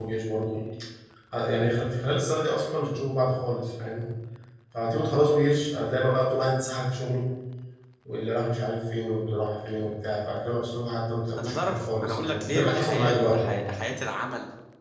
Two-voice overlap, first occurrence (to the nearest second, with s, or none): 11 s